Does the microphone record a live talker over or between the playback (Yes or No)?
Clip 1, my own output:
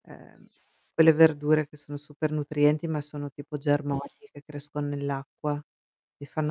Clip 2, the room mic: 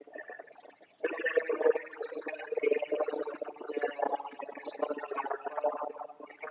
No